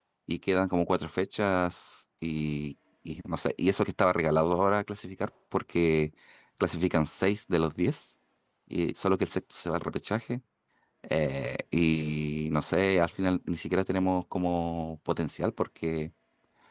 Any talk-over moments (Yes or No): No